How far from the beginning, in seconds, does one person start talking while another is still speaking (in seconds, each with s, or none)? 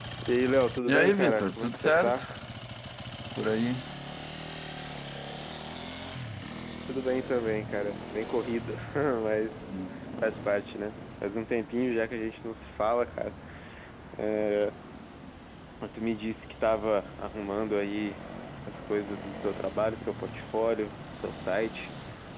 0.9 s